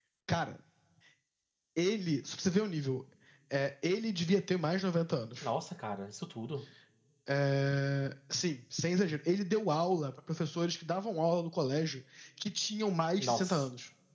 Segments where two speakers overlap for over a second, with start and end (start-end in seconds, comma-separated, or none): none